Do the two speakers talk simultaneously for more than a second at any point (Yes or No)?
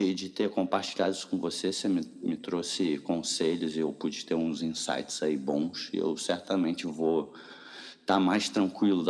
No